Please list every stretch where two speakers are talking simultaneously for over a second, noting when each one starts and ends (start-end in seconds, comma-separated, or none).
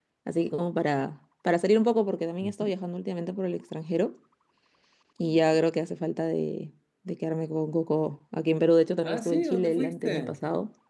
9.0-10.4